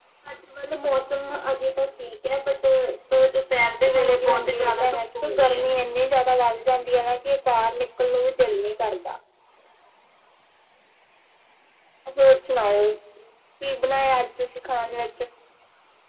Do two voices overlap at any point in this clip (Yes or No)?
Yes